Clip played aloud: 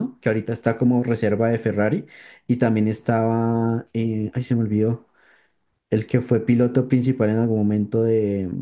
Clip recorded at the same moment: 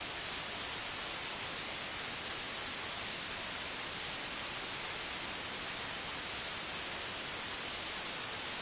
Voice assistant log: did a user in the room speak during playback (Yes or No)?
No